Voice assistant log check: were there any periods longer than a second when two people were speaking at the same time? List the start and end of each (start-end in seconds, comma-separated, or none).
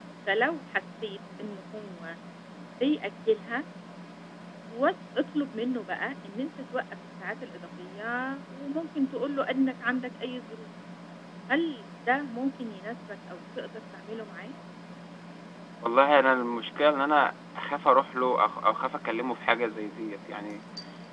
none